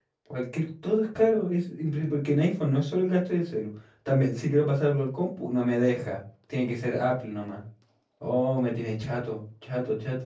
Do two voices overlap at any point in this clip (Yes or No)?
No